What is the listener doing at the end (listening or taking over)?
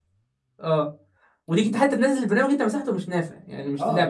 taking over